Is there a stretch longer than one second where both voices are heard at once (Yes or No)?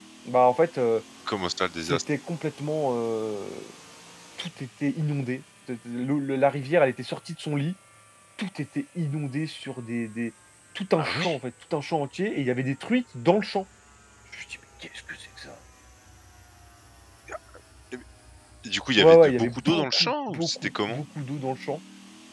Yes